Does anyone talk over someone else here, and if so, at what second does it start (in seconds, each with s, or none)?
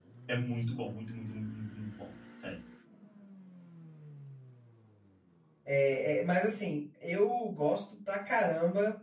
none